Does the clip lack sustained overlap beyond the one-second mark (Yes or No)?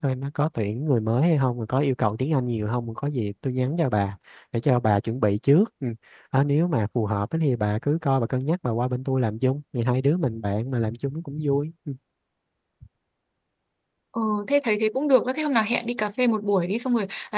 Yes